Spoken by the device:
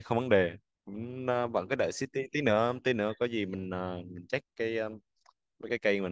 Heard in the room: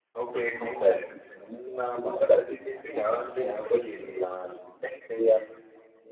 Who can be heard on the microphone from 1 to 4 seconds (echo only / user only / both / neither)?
echo only